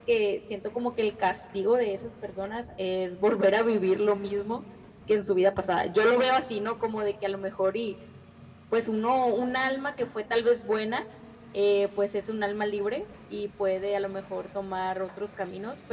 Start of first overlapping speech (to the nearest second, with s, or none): none